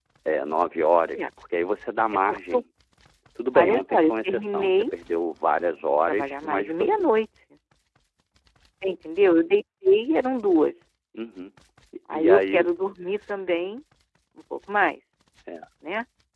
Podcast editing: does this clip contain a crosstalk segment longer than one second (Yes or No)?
Yes